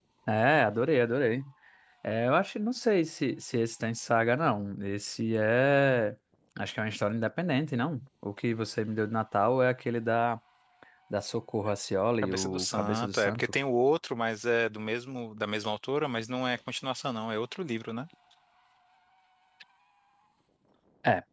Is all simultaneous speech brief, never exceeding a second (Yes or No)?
No